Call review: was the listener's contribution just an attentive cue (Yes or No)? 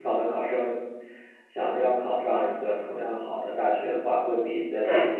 Yes